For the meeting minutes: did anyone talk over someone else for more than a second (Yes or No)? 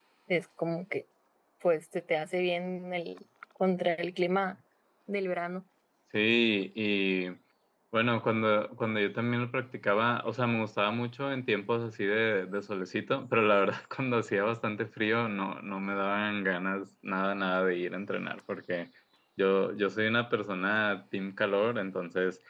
No